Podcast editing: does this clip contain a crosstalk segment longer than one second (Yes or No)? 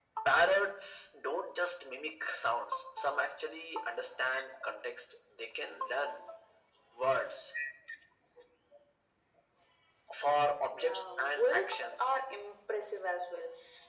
Yes